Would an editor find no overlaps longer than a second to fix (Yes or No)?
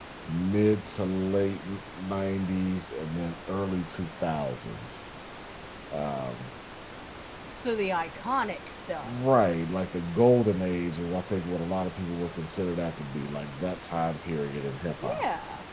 Yes